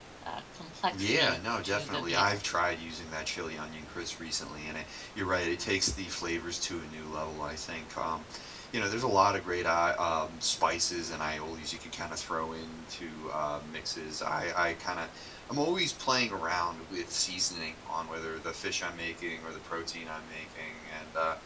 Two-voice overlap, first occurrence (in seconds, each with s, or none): 1.0 s